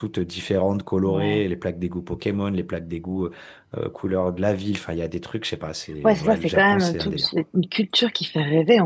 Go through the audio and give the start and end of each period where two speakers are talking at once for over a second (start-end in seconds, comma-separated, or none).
6.0-7.3